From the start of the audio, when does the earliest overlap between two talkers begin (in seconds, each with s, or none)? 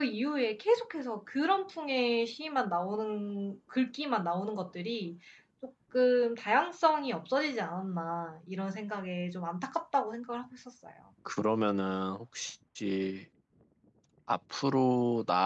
none